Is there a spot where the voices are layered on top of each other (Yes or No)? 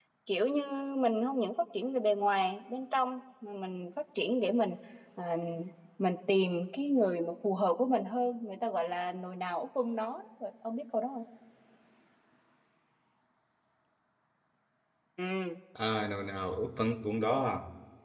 No